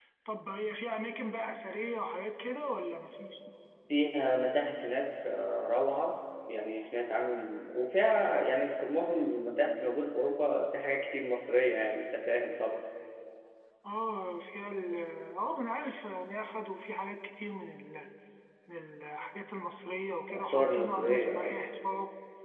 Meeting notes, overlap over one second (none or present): present